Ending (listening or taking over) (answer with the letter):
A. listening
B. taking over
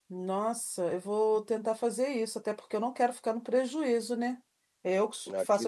A